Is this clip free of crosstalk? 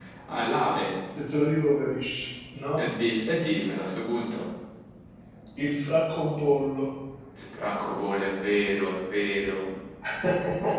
Yes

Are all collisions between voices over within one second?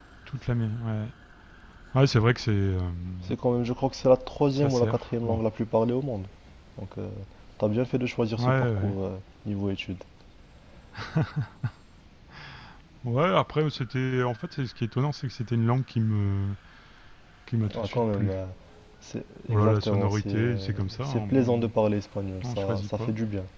No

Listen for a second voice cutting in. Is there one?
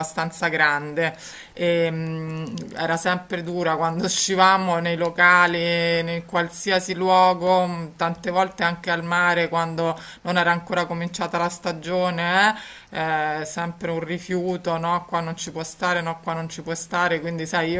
No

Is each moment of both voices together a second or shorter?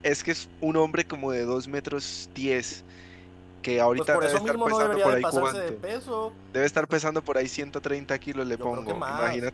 No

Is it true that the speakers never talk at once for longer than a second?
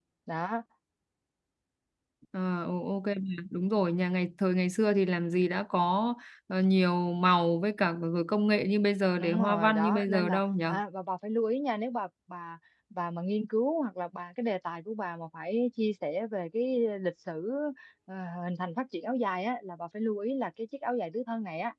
No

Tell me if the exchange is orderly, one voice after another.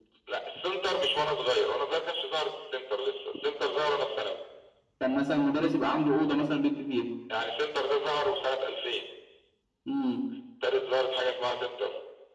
Yes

